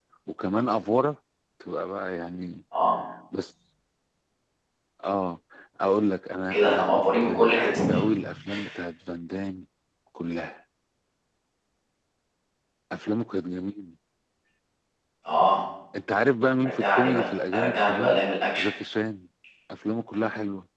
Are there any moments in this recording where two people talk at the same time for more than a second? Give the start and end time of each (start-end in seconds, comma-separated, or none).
6.5-7.9, 16.7-18.2